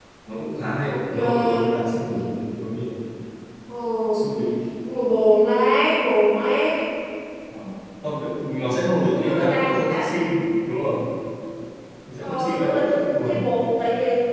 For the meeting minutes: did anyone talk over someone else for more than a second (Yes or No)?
Yes